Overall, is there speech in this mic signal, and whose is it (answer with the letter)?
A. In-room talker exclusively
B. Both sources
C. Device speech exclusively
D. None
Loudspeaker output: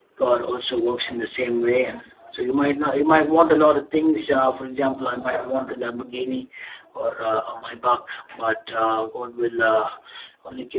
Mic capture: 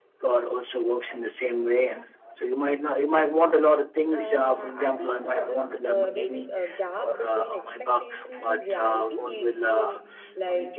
B